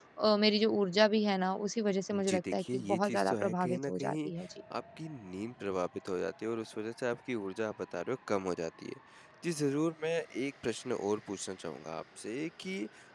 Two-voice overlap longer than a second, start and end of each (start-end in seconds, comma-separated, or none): 2.1-4.3